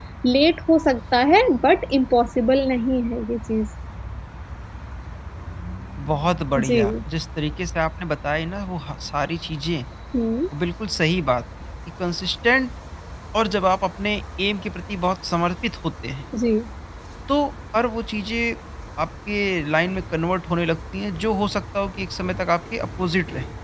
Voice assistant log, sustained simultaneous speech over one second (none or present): none